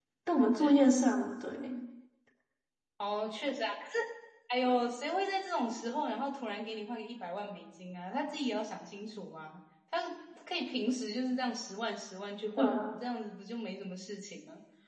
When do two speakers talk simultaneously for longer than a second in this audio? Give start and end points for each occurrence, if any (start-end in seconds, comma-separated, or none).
none